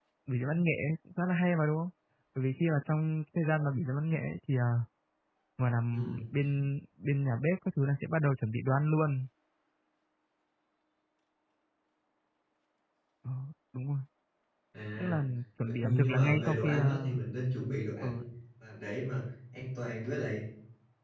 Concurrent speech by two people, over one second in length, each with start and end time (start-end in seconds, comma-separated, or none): 15.6-17.1